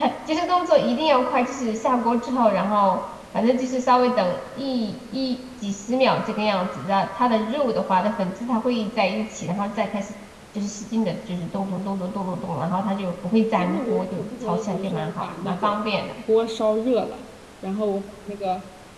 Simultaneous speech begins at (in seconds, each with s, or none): 13.6 s